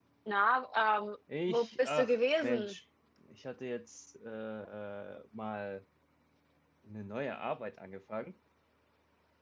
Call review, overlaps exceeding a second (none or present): present